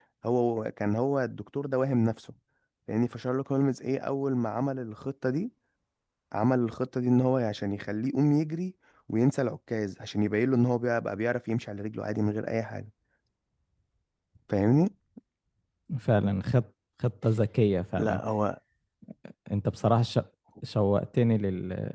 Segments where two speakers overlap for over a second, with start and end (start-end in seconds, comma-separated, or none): none